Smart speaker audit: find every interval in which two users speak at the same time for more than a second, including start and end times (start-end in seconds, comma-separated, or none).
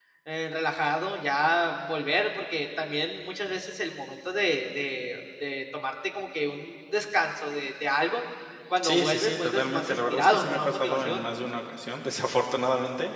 8.8-11.2